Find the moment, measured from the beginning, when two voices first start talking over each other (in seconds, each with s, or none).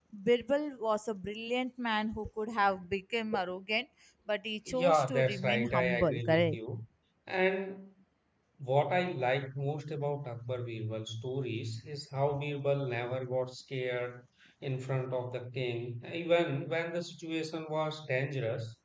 4.7 s